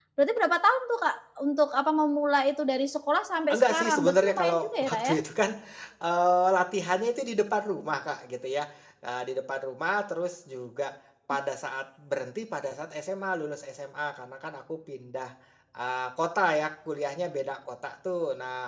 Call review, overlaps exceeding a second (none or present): present